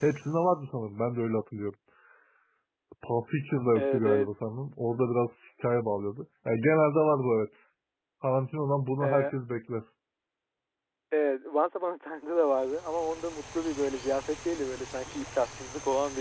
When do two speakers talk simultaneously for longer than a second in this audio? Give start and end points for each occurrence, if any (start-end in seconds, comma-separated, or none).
none